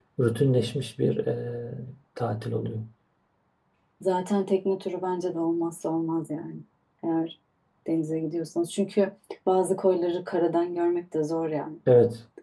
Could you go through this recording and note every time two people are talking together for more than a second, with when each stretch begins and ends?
none

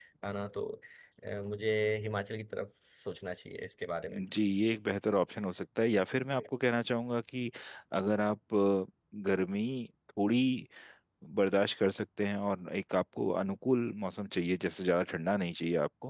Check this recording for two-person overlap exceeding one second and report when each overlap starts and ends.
none

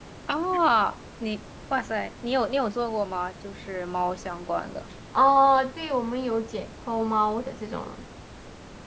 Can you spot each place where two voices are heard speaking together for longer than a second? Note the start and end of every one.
none

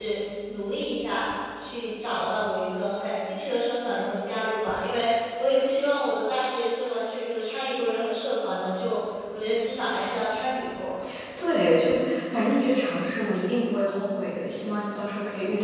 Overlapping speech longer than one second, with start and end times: none

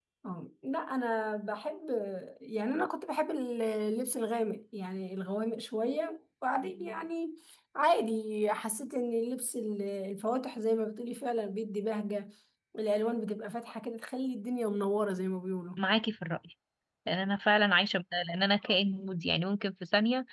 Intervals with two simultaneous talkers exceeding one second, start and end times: none

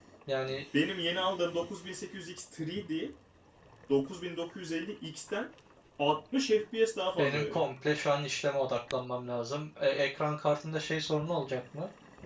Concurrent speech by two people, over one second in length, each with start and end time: none

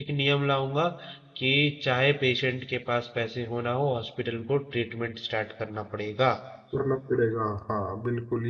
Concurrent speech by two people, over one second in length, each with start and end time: none

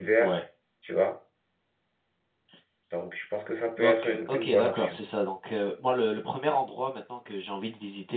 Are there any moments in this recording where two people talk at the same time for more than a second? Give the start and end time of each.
3.8-5.0

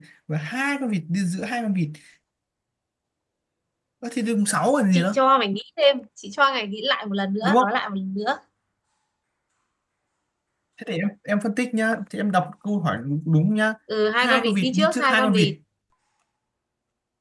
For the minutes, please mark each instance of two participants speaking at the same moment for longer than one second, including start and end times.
14.2-15.5

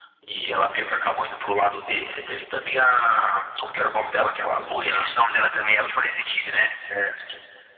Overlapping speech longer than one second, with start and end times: none

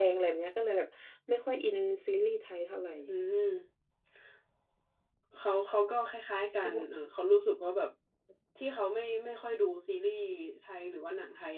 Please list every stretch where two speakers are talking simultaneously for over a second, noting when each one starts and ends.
none

